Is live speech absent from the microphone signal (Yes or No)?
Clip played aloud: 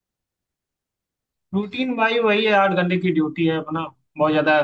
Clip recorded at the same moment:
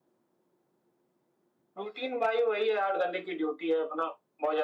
Yes